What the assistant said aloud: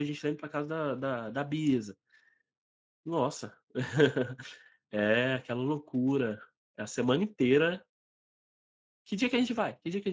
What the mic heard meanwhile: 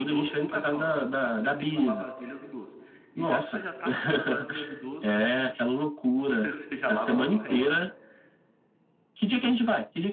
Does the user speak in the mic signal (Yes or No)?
Yes